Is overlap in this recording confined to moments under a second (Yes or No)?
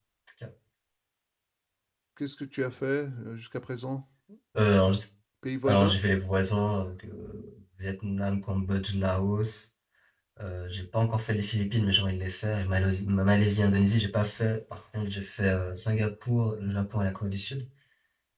Yes